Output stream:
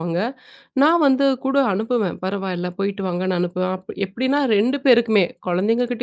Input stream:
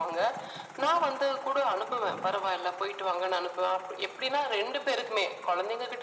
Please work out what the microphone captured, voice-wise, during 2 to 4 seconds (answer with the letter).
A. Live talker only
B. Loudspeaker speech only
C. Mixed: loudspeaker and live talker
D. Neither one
B